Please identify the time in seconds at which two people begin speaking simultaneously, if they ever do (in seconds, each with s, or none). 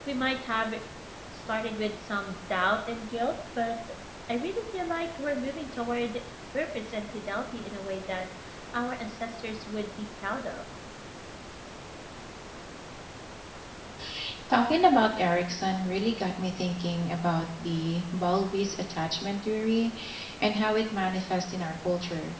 none